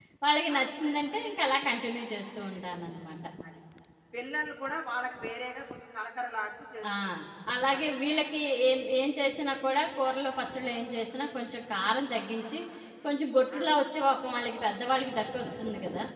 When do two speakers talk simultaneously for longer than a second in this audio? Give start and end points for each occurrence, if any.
none

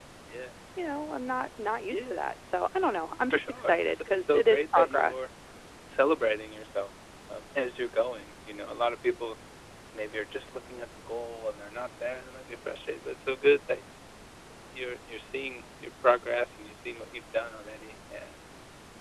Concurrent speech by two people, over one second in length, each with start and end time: 3.3-5.2

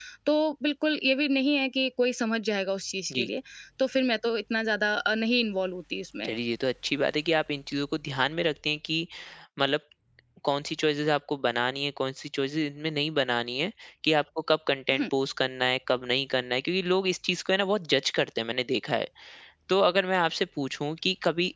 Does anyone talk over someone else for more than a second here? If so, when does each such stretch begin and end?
none

